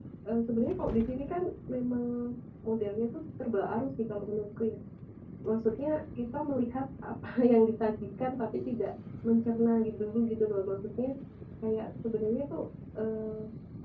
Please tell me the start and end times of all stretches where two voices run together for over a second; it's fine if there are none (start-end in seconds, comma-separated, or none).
none